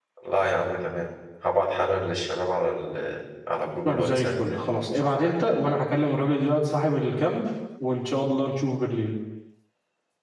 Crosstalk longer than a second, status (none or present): present